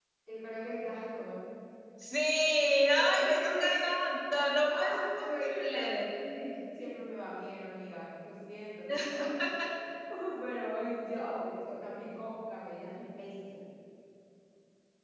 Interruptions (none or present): present